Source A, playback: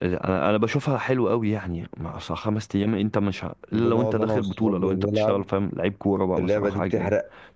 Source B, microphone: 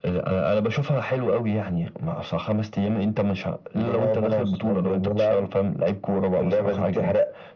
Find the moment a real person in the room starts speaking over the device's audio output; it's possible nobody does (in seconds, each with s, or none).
none